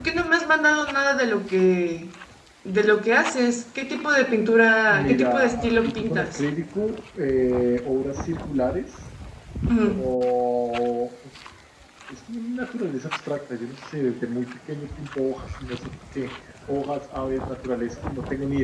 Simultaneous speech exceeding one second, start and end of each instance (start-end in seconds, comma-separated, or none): 4.9-6.4